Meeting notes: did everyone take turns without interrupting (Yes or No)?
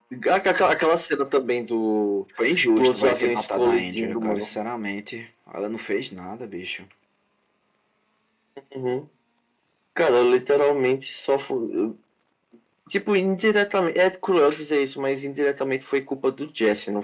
No